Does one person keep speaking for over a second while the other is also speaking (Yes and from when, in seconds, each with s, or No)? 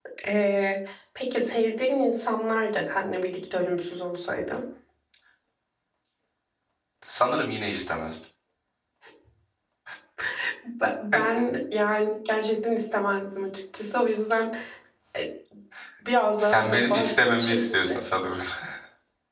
Yes, from 16.4 s